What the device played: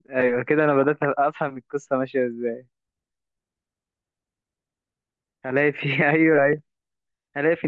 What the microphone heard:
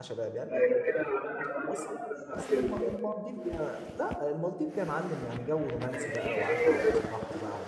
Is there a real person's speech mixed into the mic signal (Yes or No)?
Yes